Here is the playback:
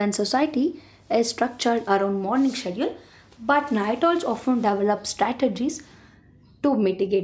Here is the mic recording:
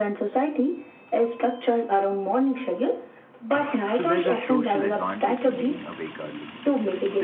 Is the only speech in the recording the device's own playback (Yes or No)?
No